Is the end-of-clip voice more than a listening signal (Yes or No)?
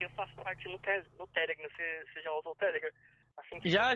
No